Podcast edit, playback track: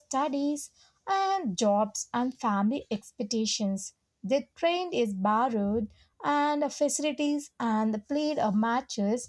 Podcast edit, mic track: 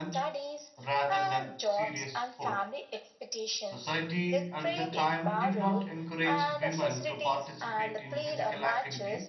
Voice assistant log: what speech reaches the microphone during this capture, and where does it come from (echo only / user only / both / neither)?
both